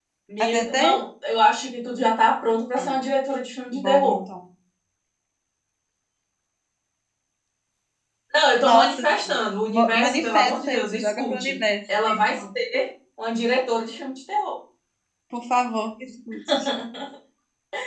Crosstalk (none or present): present